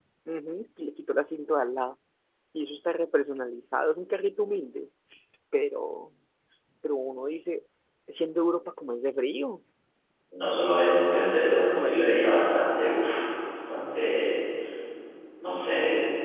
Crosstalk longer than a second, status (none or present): none